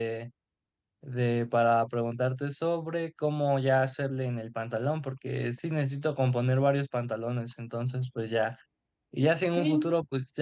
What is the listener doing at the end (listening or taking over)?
listening